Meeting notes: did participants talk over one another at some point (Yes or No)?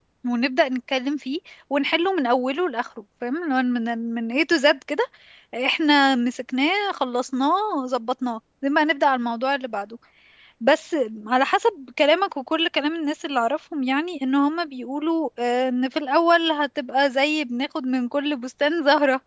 No